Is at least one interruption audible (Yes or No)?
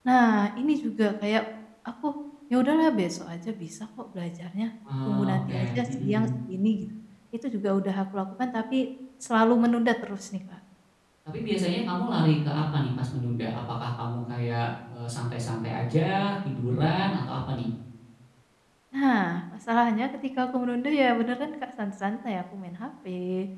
Yes